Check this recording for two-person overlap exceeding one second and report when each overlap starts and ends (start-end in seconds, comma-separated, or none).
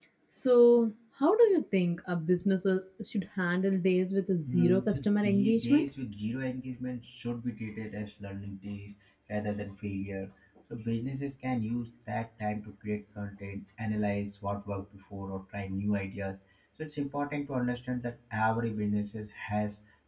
4.5-5.9